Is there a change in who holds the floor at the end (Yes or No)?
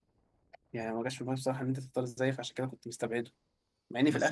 Yes